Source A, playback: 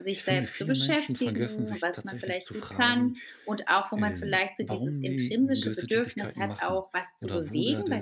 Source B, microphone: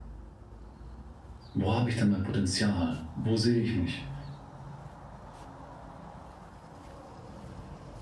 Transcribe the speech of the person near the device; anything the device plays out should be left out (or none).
„Wo habe ich denn mein Potenzial? Wo sehe ich mich?